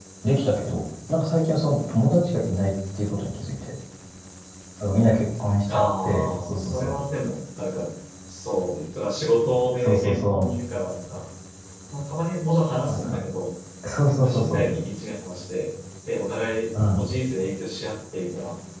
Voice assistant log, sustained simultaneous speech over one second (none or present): present